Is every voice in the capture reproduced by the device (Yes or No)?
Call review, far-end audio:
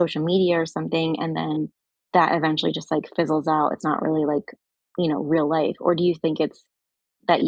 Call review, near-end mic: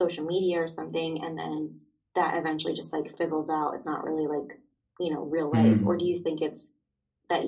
No